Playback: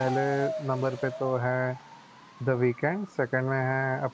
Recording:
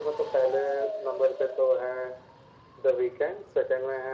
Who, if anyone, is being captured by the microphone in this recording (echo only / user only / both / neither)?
echo only